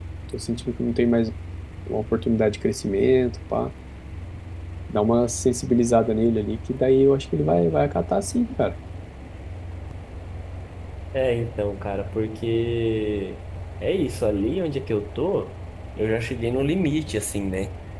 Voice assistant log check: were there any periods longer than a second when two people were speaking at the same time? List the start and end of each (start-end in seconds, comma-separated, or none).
none